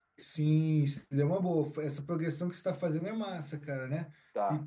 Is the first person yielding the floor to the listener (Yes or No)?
No